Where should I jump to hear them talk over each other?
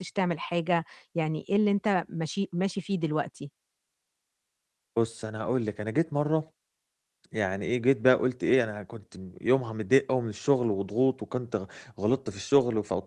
none

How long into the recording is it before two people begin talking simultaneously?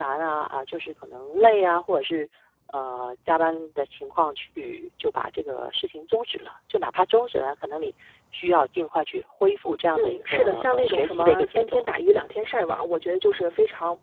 9.9 s

